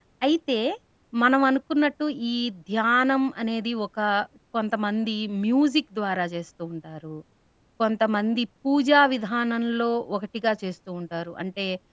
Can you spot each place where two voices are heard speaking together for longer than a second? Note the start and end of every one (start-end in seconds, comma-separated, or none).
none